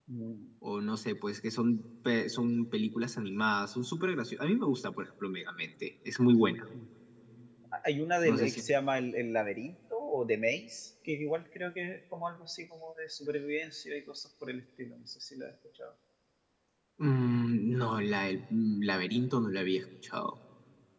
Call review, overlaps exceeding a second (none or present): none